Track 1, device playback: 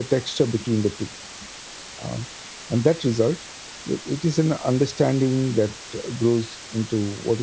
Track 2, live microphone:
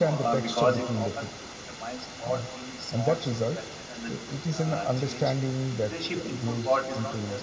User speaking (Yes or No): Yes